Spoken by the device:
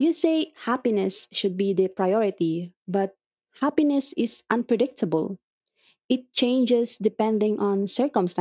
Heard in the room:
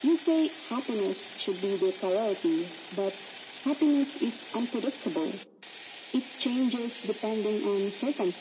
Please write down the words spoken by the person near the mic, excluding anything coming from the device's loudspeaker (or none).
none